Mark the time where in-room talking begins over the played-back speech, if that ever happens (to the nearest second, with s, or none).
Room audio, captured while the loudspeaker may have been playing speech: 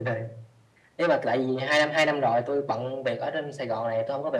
none